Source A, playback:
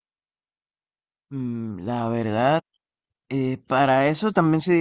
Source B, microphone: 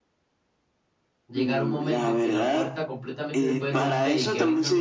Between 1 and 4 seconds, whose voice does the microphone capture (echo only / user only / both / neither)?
both